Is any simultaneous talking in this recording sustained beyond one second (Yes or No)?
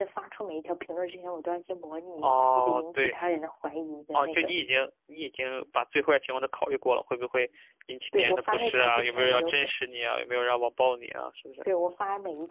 Yes